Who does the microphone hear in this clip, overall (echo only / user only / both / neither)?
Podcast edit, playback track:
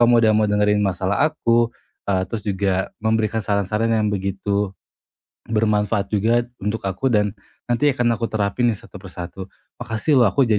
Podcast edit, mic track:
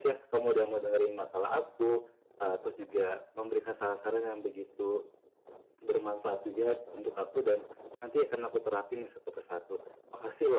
echo only